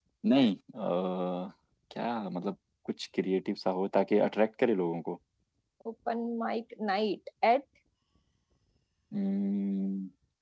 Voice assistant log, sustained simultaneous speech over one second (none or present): none